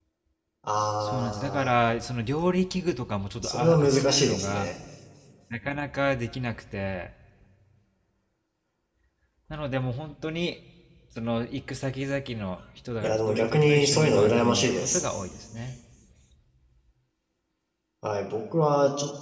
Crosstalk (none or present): present